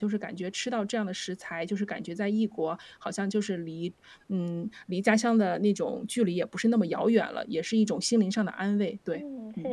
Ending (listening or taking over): taking over